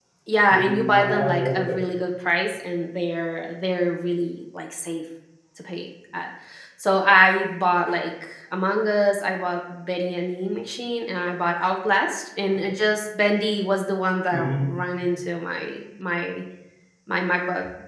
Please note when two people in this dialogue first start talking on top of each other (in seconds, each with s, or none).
0.5 s